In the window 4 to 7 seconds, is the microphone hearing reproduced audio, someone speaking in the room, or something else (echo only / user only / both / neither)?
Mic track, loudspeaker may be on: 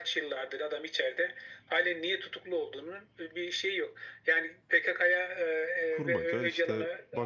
both